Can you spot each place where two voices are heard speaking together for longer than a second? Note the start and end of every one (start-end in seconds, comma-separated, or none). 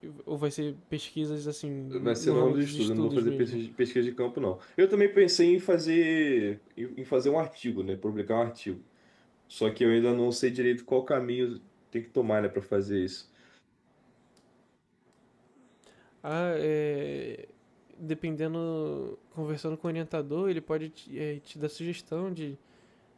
2.0-3.6